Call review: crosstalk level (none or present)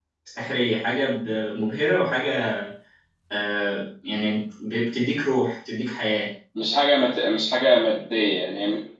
none